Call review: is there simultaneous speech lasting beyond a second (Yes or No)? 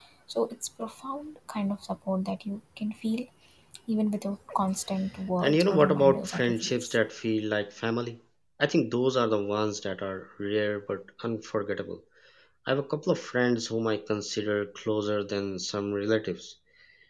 Yes